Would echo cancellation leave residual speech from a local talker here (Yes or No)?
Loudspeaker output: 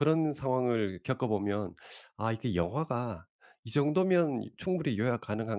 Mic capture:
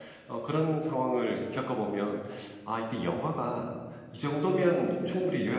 No